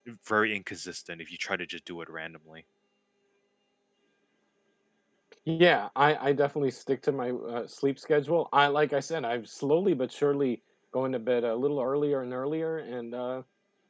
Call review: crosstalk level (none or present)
none